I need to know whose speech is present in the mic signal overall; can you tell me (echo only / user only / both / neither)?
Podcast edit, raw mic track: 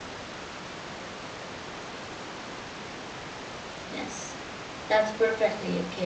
user only